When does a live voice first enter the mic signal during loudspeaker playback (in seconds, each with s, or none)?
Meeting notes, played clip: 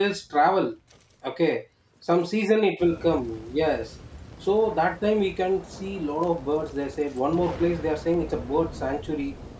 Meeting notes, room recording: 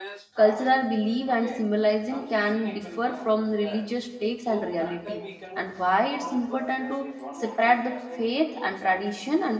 0.4 s